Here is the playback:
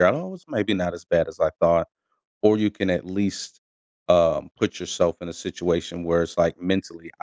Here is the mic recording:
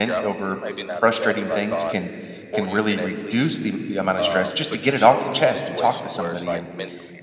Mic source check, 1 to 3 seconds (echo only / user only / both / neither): both